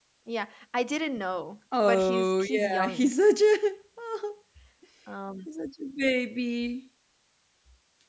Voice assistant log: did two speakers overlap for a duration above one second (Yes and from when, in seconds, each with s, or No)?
Yes, from 1.7 s